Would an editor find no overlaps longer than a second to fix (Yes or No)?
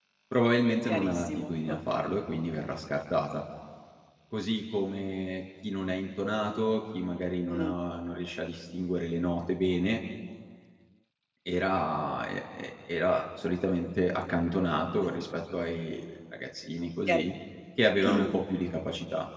No